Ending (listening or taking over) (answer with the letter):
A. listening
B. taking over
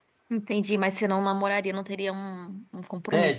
B